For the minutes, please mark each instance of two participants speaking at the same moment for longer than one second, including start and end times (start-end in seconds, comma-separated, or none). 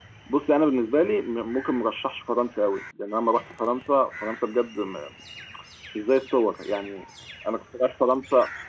none